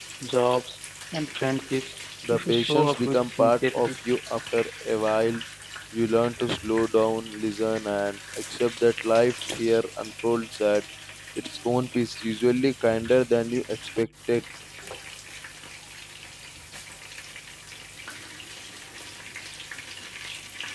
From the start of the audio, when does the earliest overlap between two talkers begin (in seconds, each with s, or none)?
2.3 s